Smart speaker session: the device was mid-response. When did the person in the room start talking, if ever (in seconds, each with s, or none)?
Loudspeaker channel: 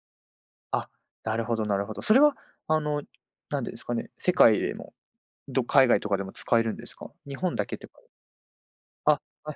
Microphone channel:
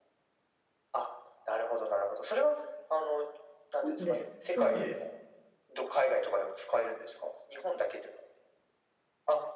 3.8 s